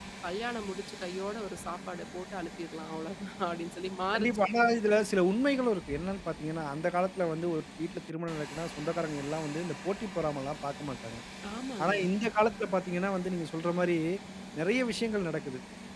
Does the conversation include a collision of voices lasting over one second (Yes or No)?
No